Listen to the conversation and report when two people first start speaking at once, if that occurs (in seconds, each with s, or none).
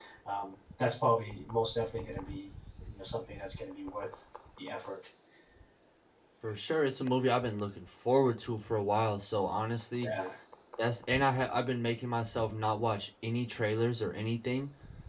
none